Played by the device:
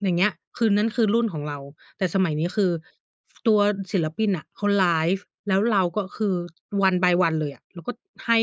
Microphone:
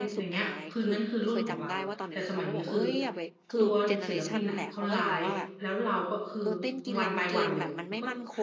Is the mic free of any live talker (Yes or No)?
No